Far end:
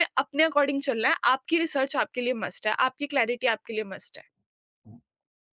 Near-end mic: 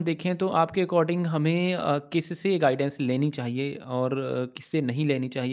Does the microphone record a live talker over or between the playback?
Yes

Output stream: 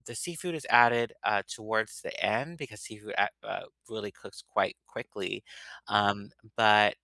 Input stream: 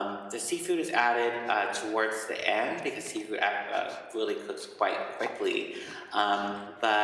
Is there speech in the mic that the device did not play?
No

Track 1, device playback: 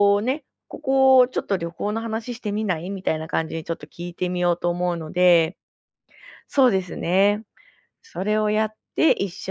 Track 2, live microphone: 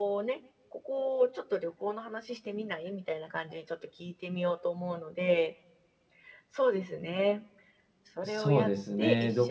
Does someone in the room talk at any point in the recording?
Yes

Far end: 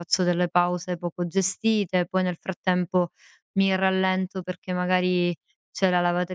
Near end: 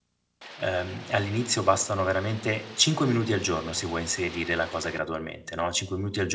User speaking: Yes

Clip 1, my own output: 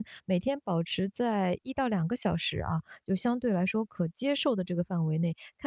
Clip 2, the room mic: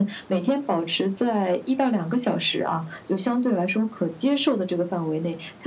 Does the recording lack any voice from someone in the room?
Yes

